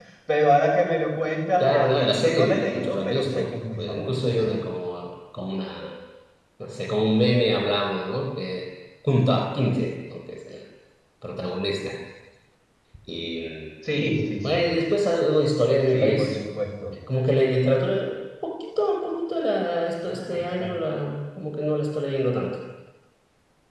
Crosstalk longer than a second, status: present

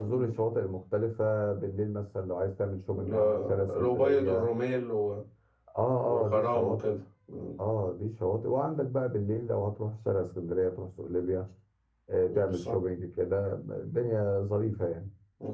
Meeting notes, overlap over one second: present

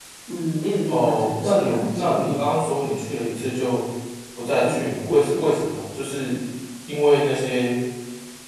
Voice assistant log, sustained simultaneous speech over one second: present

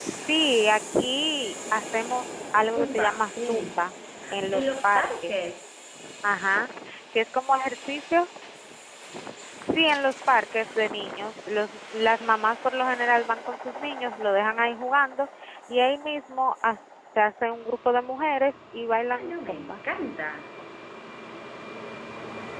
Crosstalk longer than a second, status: present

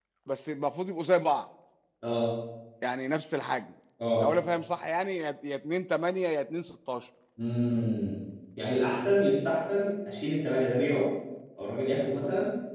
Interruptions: none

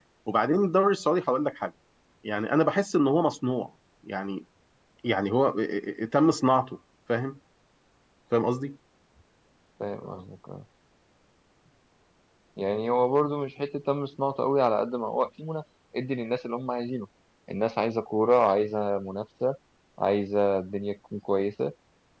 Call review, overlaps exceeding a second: none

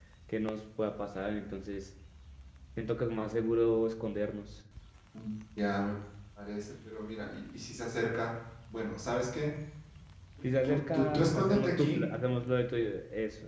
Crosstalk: present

